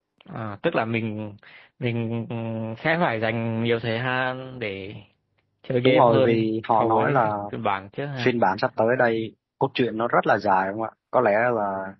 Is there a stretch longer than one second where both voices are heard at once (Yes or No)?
Yes